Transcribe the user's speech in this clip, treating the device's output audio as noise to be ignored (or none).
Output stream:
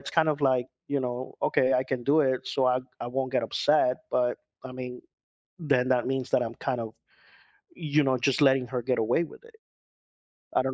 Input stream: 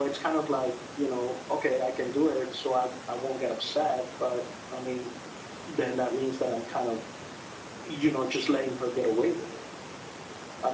none